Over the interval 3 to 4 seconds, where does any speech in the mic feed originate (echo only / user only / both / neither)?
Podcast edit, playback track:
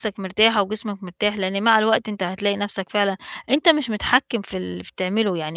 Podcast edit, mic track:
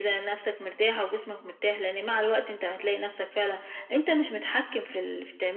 echo only